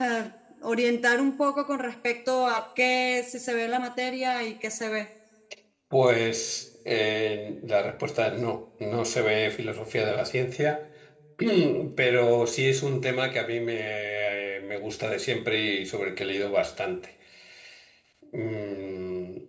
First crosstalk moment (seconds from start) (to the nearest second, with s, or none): none